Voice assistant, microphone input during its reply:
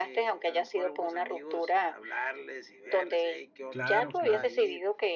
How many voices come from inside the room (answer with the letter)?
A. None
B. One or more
B